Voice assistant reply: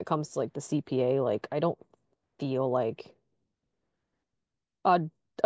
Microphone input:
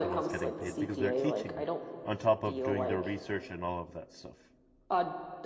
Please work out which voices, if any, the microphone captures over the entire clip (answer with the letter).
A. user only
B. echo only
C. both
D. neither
C